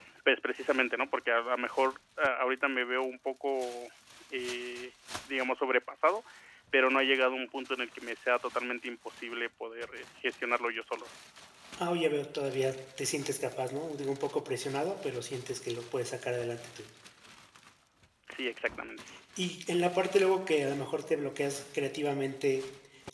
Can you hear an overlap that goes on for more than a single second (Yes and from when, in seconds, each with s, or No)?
No